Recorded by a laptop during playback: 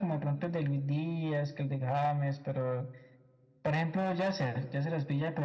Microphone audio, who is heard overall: echo only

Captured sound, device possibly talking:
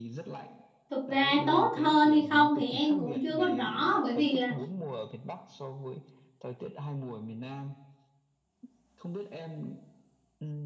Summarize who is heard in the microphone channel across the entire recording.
both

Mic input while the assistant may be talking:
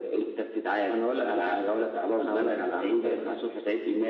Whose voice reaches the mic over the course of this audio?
echo only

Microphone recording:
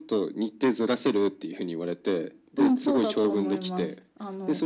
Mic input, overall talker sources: echo only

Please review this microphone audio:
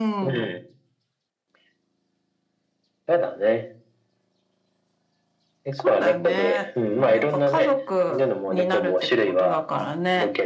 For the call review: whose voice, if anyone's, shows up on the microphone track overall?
echo only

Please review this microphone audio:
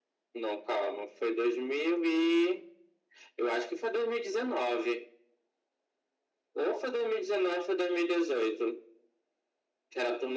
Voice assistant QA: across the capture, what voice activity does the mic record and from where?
echo only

